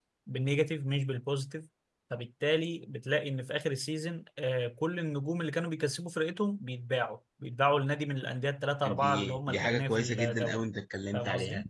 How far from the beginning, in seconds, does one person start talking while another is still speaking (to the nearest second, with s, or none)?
9 s